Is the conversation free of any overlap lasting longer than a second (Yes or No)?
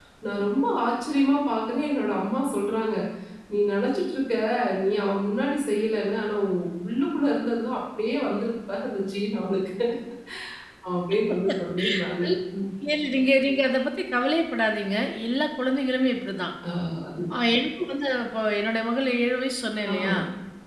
Yes